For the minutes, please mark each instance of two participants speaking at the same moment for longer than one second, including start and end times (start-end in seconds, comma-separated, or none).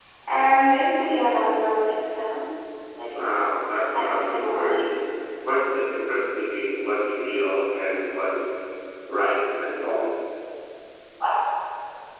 3.1-5.0